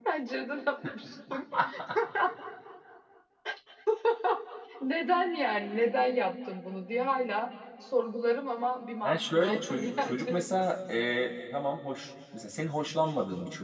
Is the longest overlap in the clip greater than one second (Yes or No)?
Yes